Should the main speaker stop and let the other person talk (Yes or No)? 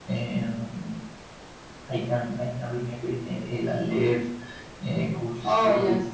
No